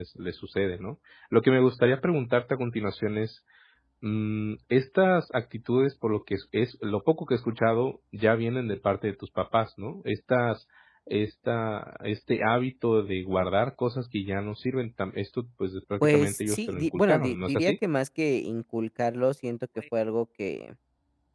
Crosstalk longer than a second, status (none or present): present